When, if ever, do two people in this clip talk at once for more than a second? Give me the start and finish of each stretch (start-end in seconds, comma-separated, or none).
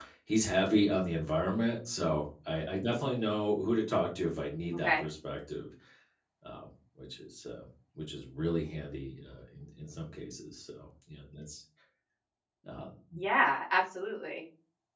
none